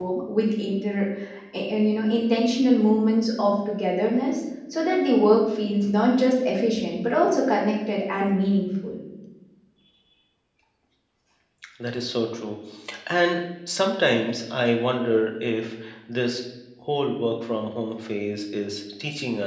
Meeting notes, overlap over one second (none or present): none